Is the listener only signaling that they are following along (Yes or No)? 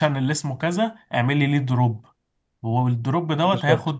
Yes